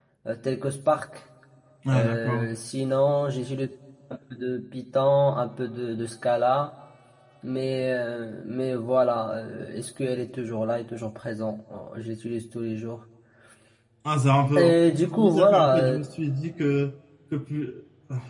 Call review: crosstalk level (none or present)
present